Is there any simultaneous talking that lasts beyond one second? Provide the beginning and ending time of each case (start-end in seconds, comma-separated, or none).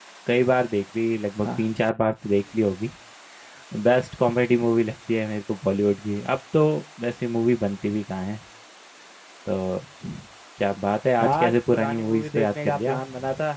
11.2-13.0